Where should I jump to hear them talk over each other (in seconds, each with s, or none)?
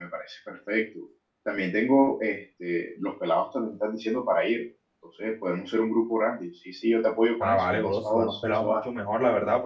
7.4 s